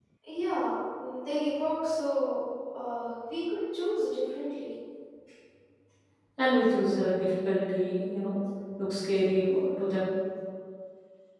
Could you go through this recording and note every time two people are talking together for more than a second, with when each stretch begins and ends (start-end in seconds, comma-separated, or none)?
none